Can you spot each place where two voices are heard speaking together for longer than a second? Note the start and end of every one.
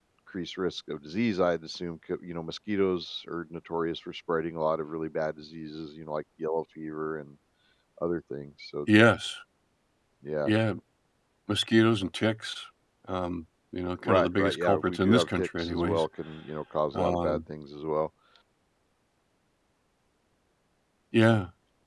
14.1-16.0

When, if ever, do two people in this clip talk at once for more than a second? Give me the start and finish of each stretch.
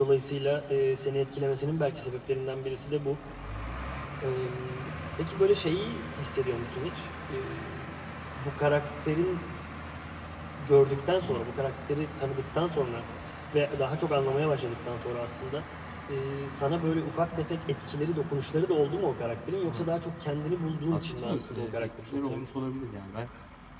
20.9-22.5

